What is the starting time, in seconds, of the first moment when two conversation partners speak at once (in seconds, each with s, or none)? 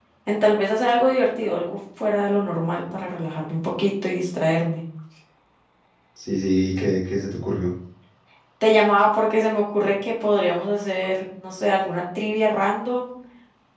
none